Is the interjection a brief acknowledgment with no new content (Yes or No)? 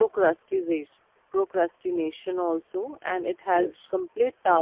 Yes